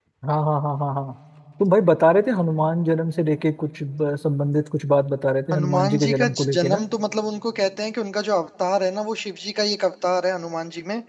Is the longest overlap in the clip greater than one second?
Yes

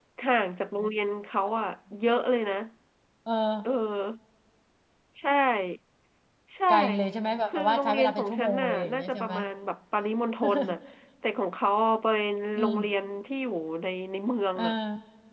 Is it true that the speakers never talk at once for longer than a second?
No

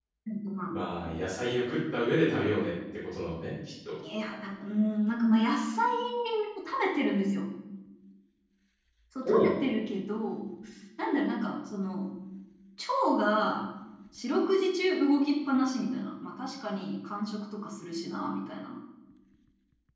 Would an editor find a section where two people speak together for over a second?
No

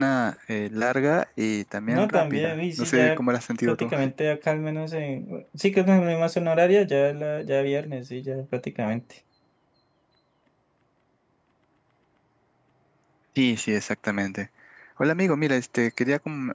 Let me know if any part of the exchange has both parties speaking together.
Yes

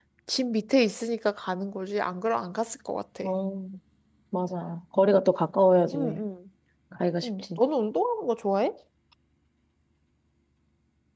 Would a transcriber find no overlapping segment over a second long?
Yes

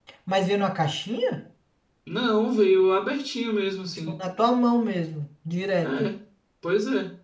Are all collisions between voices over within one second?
Yes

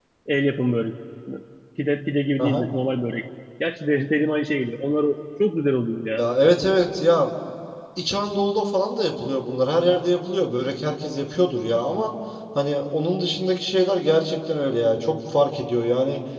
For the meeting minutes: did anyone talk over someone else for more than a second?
No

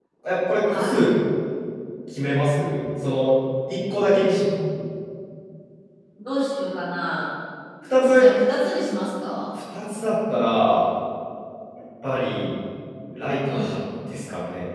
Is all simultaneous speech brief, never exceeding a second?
Yes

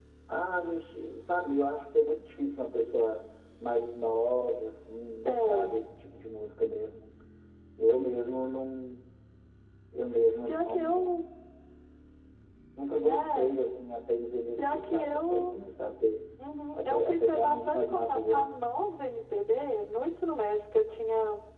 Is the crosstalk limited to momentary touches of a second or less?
No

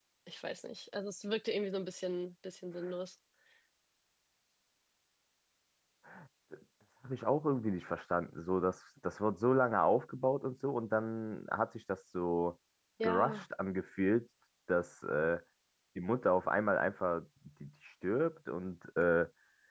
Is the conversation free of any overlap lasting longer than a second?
Yes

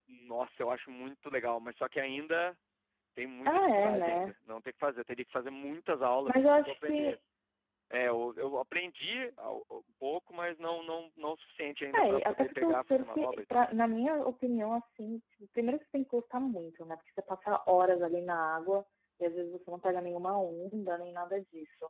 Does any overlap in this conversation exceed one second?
Yes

